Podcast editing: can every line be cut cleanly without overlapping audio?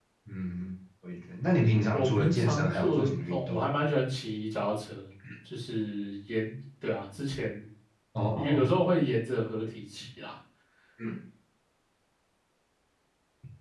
No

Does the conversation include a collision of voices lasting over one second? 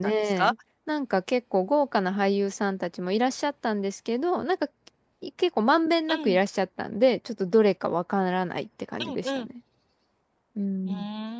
No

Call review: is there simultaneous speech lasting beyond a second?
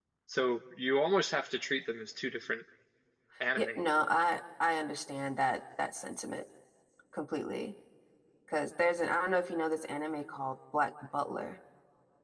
No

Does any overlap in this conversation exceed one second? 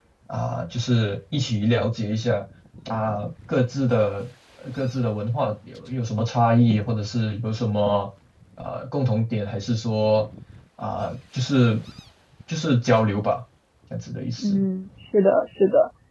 No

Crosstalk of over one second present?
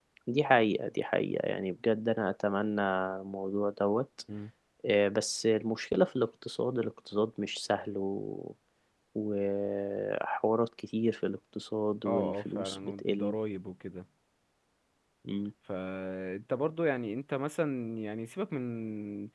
Yes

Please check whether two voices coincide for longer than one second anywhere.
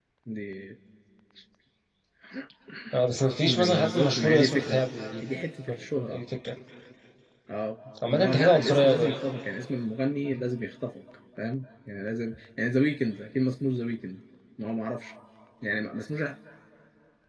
Yes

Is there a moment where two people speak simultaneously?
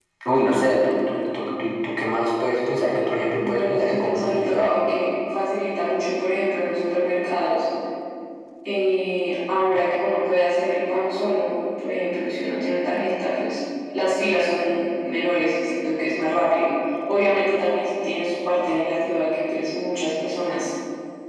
Yes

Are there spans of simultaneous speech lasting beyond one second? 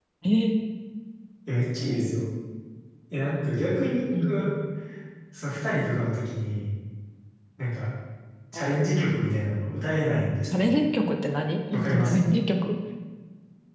No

